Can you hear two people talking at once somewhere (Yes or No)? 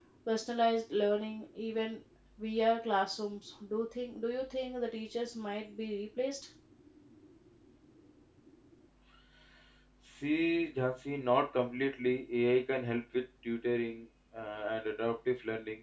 No